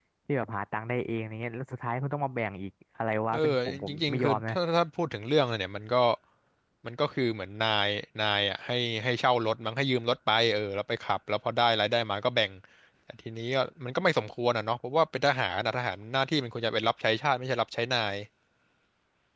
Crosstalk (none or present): present